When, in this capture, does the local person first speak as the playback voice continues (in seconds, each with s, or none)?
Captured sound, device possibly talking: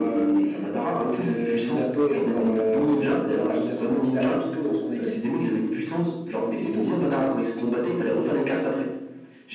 none